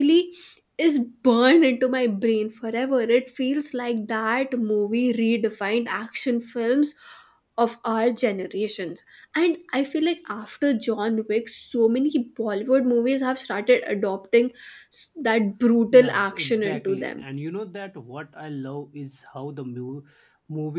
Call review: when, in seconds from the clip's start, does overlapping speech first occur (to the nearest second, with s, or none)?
16 s